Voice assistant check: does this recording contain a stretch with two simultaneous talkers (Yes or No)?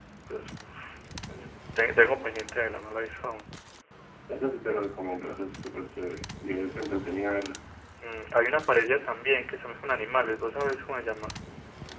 No